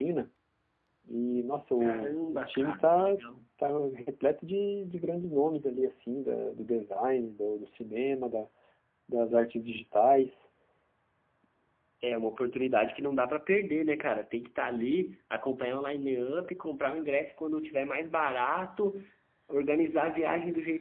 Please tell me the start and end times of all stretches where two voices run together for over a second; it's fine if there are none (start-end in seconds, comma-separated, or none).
1.8-3.2